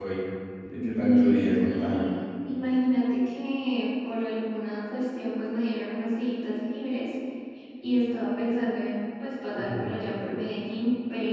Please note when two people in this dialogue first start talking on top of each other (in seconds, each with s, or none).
0.8 s